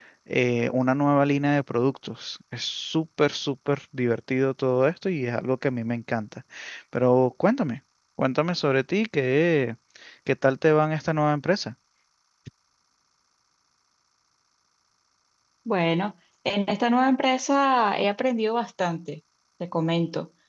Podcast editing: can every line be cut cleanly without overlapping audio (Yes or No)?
Yes